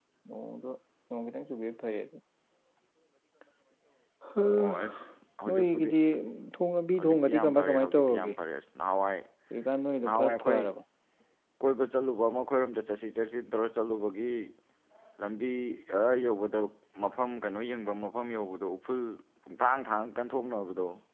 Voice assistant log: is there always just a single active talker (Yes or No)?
No